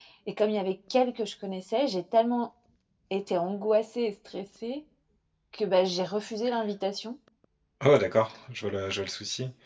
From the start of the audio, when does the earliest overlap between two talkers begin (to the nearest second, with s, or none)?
none